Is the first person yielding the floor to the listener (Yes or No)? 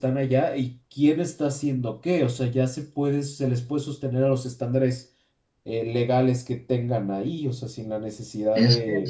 Yes